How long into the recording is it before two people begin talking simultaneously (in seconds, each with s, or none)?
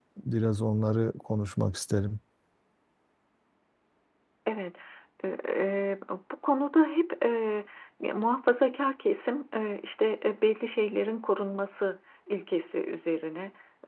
none